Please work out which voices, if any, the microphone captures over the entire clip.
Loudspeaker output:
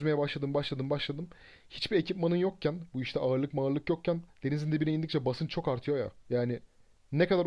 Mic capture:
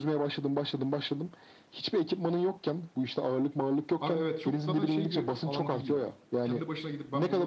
both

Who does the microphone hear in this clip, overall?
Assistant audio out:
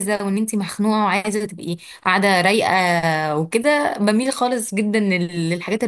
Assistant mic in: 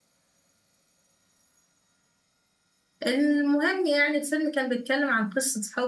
user only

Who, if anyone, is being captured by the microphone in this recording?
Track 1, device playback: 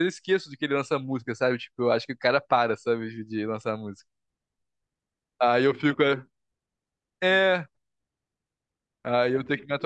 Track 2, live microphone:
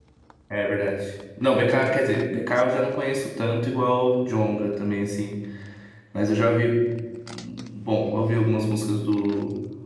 user only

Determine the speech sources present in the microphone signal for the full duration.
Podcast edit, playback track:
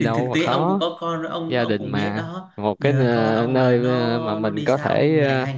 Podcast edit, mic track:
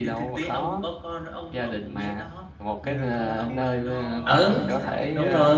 both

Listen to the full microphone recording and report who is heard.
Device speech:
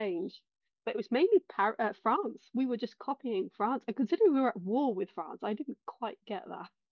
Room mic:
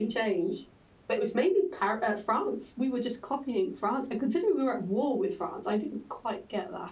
echo only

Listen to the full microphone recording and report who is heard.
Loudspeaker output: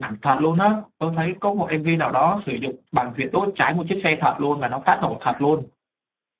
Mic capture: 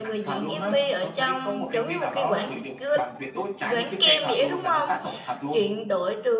both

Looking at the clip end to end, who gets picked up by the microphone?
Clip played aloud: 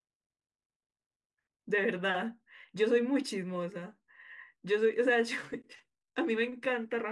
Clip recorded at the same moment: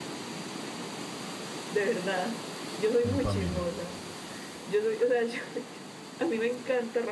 both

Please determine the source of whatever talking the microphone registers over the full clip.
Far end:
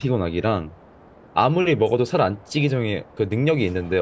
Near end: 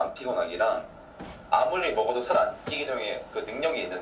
echo only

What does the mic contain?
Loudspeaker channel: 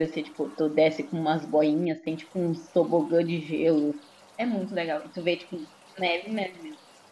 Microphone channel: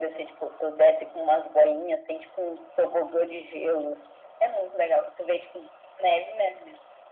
echo only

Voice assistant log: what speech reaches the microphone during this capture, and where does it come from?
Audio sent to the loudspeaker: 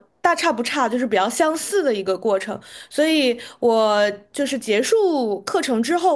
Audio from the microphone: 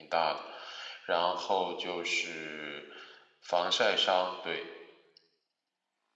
user only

